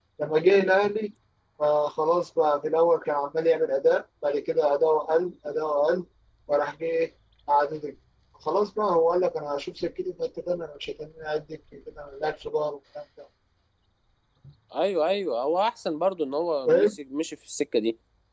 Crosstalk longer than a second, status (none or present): none